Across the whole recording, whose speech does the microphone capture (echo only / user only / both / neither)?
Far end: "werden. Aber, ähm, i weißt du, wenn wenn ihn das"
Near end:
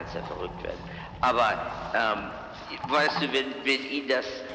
echo only